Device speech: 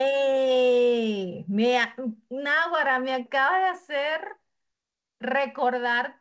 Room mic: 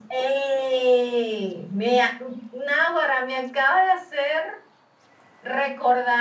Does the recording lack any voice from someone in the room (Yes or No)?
Yes